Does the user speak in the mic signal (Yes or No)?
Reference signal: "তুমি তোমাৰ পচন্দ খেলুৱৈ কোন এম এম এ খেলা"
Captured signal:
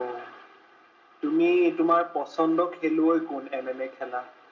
No